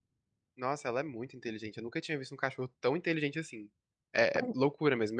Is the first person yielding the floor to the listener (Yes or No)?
No